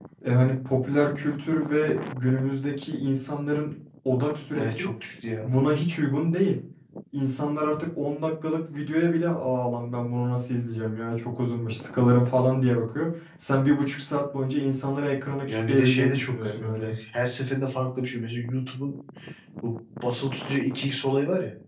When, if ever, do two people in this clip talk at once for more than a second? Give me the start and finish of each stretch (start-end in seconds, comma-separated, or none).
15.5-16.9